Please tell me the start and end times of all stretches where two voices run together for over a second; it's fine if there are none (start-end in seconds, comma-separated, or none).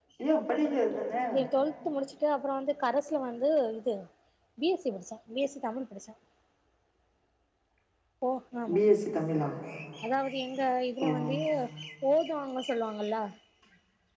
none